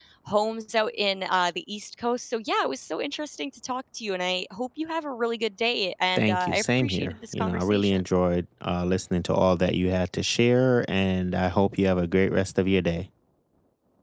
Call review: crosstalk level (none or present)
present